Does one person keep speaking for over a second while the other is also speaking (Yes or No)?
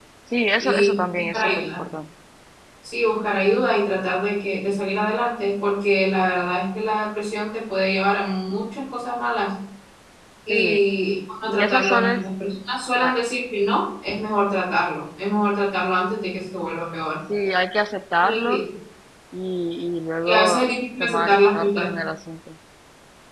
Yes